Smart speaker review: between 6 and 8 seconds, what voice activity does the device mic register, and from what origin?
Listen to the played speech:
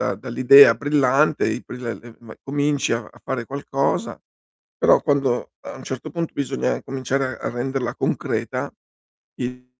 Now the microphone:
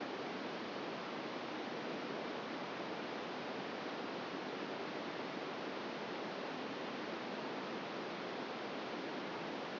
neither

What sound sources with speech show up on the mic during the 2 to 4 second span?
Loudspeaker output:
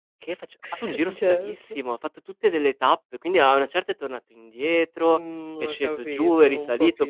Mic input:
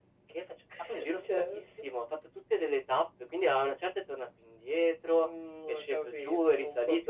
echo only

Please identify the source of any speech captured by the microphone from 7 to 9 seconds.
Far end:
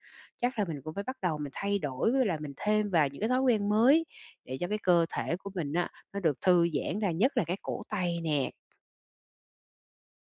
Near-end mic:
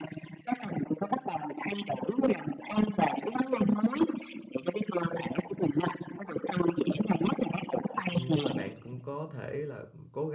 both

